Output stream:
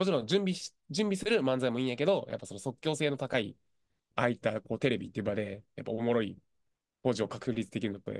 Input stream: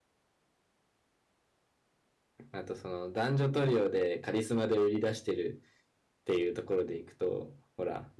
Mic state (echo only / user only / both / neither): user only